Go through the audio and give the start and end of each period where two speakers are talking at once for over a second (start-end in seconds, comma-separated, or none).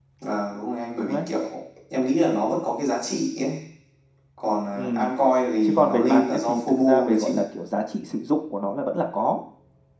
5.6-7.4